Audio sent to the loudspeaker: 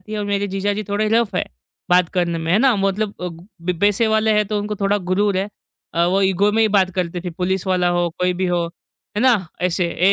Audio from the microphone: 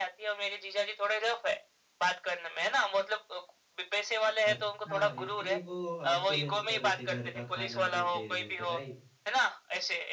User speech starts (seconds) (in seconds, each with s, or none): 4.5 s